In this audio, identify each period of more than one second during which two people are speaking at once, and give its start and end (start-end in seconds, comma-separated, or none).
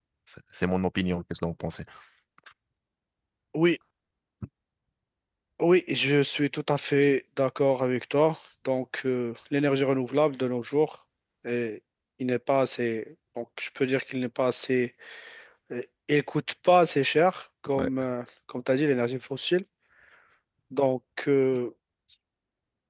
none